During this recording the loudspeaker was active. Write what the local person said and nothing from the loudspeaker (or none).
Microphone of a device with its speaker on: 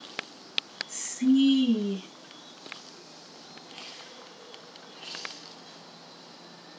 Sí.